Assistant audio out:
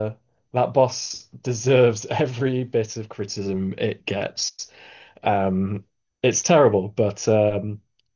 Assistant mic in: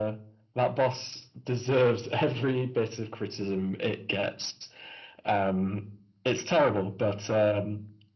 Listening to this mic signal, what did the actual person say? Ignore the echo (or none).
none